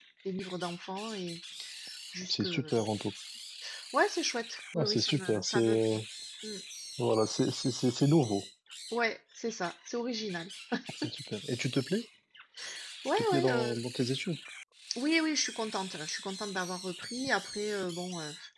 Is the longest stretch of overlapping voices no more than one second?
No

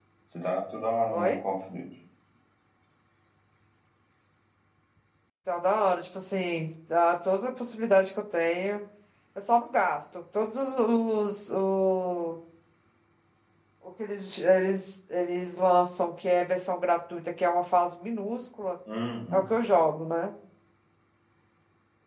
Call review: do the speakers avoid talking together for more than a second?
Yes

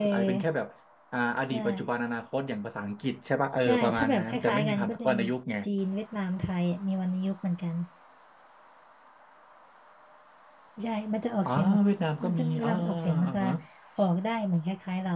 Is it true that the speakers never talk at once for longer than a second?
No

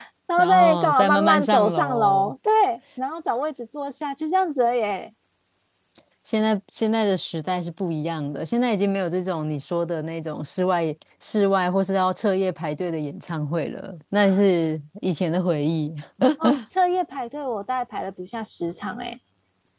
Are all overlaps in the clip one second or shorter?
No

